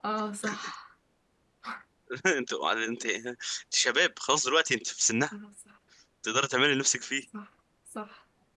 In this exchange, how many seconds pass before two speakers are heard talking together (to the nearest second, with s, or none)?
none